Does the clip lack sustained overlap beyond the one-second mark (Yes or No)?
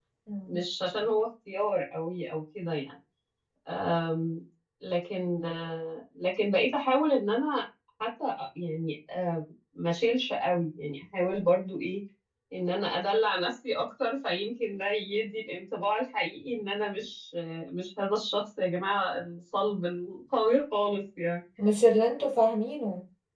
Yes